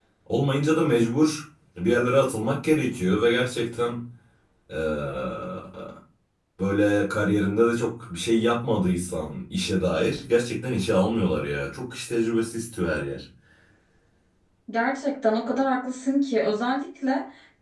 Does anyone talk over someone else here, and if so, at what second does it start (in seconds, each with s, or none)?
none